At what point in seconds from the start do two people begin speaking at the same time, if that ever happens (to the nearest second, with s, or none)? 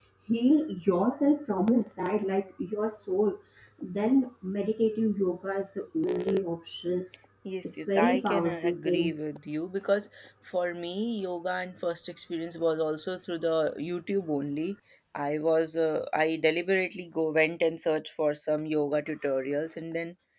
8 s